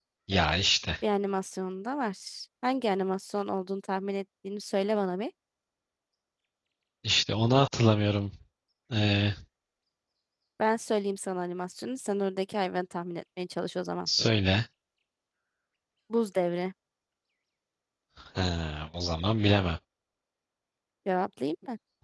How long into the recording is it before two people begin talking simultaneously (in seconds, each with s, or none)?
none